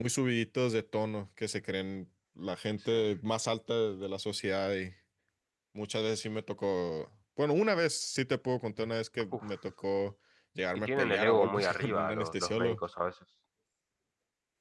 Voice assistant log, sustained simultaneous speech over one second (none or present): present